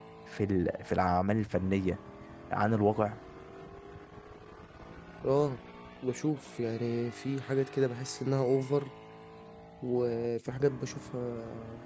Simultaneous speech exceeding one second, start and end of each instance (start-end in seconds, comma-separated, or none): none